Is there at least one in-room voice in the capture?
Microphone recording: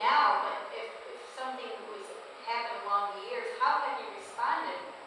No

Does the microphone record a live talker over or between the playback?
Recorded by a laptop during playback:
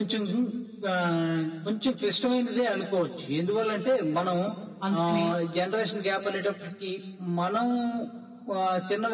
Yes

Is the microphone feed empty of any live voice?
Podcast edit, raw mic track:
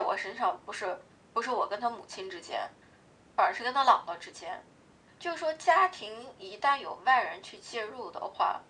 Yes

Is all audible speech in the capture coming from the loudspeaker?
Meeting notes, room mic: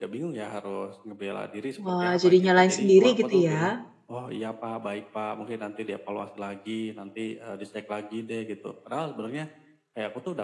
No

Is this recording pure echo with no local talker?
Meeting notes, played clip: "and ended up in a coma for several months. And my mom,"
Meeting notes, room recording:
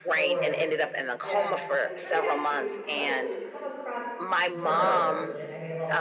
No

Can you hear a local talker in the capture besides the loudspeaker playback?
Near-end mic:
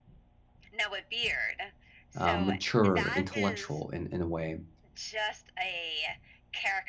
Yes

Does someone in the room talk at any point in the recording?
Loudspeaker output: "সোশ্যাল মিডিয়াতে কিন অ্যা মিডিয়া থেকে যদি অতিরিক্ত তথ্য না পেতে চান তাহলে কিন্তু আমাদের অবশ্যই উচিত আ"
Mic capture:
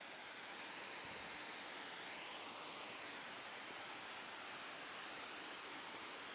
No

